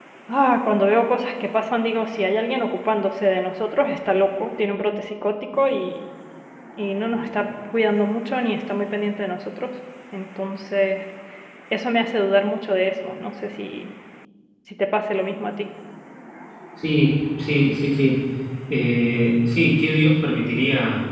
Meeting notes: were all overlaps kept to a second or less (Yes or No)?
Yes